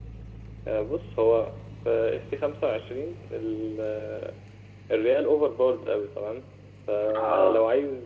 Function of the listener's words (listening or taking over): listening